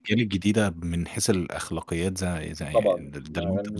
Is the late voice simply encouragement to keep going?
No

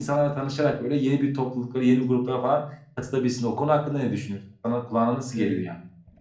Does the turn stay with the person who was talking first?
No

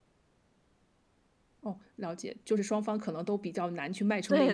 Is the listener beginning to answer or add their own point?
Yes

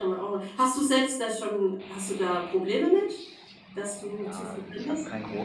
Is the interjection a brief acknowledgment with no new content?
No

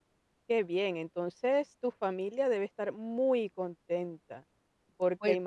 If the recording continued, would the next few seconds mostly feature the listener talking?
No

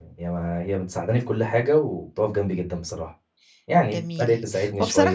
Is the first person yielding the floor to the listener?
Yes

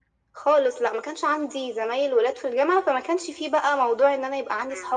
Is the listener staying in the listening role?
No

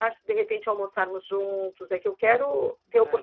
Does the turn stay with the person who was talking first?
Yes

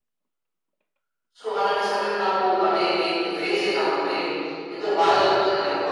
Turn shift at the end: Yes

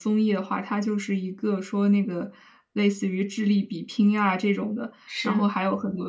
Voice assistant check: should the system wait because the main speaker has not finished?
Yes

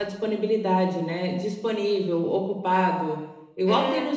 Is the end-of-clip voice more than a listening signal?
No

